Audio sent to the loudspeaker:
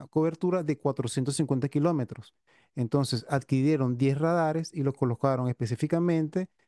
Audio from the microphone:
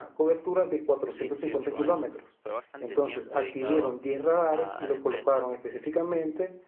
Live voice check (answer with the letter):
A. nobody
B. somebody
B